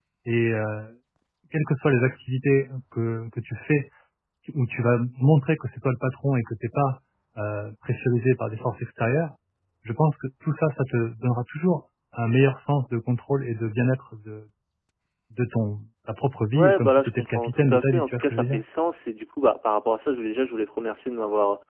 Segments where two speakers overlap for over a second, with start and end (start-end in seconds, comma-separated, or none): 16.5-18.6